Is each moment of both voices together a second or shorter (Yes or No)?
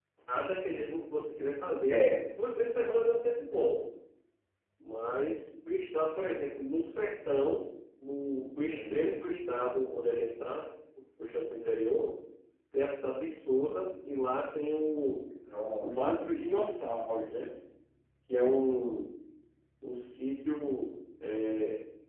Yes